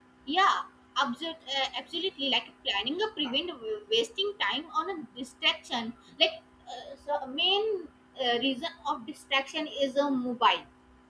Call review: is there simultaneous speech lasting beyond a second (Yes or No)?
No